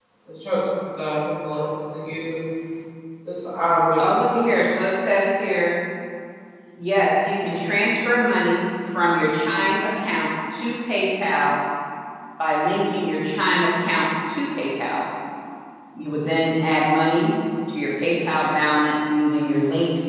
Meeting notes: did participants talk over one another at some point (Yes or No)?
No